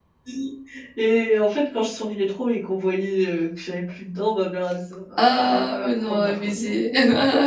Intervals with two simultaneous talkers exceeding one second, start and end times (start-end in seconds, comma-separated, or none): 5.2-6.8